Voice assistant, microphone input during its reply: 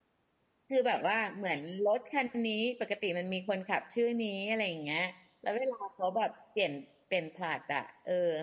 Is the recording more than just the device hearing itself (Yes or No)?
Yes